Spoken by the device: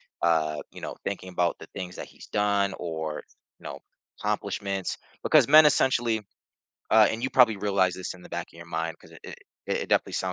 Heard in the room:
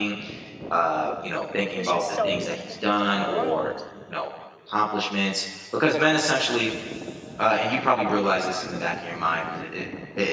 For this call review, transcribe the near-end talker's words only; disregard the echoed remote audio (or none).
he's just so in his own world